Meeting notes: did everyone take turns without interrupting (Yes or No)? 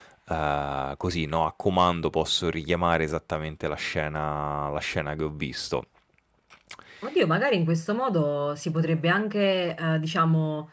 Yes